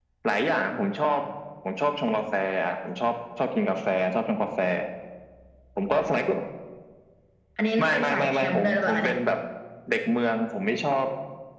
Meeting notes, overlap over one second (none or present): present